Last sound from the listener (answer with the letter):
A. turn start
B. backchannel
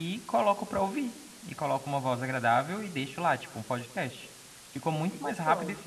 B